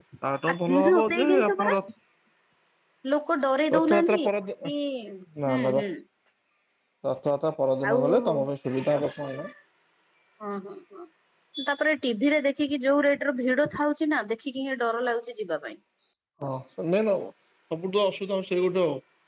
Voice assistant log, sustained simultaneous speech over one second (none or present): present